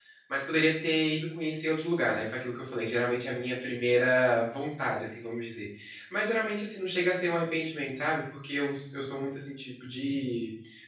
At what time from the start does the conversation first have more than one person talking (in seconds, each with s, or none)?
none